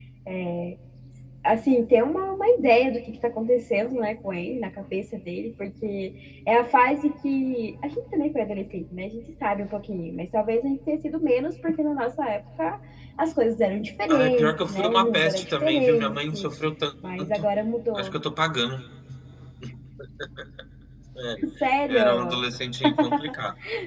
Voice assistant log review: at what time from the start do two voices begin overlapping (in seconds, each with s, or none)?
14.1 s